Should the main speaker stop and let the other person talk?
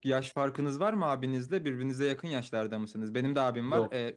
No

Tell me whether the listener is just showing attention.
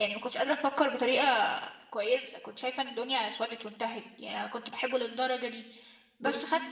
Yes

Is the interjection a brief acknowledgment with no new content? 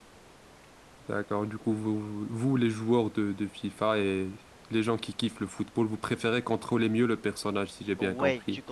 No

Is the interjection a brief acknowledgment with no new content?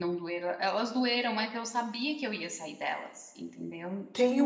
No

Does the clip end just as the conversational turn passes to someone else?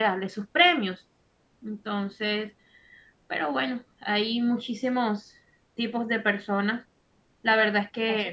No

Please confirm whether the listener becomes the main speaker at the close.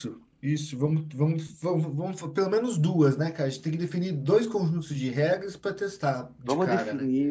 Yes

